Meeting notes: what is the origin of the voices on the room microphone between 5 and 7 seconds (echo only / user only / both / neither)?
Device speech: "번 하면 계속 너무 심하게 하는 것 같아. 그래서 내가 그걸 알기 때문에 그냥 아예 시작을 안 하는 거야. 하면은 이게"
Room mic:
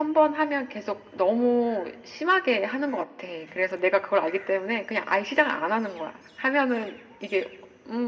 echo only